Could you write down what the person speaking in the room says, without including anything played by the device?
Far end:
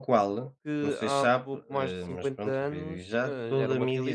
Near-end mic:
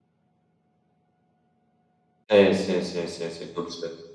Sim, sim, sim, sim, sim, estou a perceber.

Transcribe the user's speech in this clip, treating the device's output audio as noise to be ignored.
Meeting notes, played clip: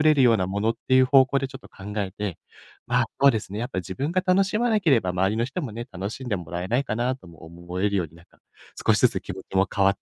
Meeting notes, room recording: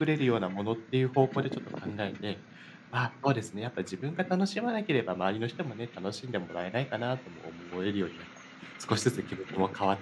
none

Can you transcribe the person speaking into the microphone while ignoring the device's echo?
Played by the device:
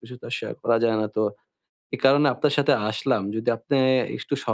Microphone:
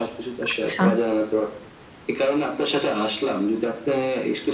আচ্ছা।

